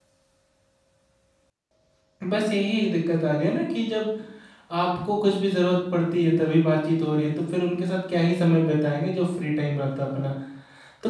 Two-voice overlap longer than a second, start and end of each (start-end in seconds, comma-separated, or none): none